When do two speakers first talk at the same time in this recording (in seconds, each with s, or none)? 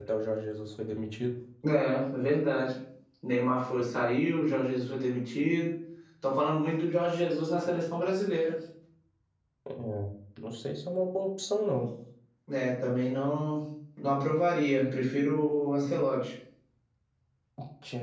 none